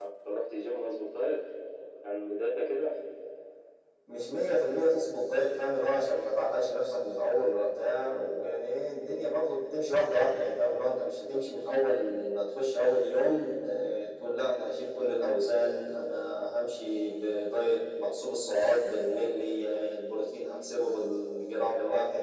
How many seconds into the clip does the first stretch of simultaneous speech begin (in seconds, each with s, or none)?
none